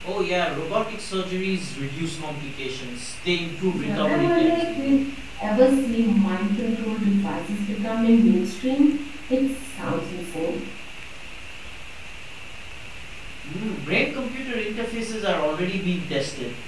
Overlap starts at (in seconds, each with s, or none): 3.7 s